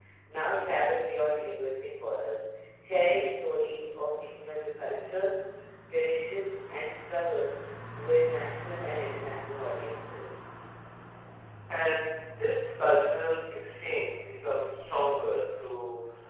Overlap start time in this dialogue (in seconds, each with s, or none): none